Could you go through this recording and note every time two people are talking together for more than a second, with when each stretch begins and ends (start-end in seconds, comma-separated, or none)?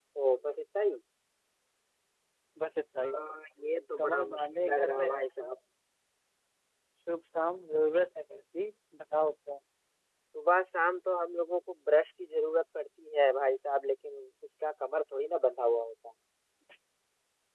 4.0-5.5